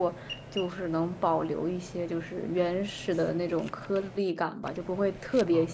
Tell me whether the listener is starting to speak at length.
No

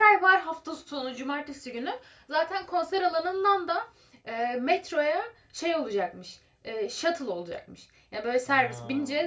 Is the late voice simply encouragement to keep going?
Yes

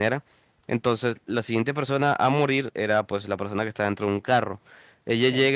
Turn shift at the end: No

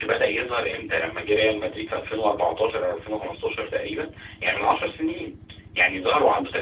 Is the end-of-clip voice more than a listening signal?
No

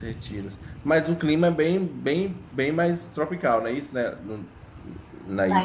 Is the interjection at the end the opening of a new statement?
Yes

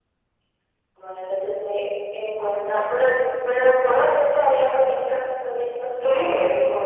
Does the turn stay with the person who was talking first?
No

